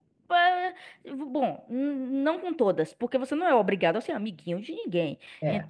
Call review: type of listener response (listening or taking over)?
listening